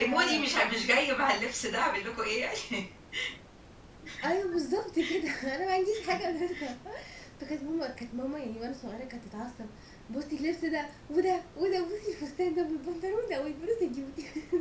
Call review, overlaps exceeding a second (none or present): none